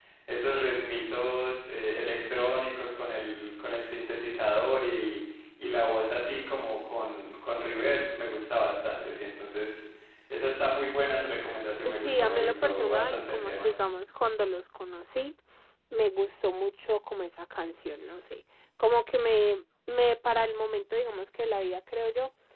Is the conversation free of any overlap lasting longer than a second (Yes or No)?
No